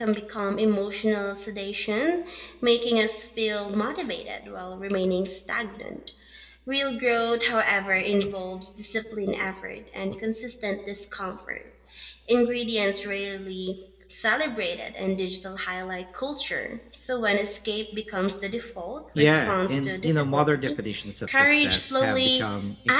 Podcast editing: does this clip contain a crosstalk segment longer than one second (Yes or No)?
Yes